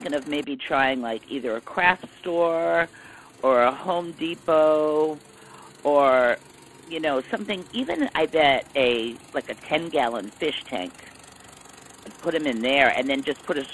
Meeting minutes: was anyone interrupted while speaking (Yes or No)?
No